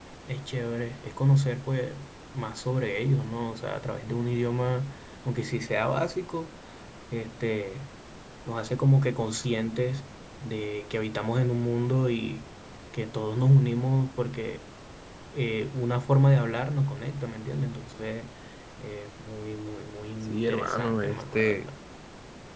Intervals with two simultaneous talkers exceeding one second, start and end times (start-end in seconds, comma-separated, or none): 20.2-21.7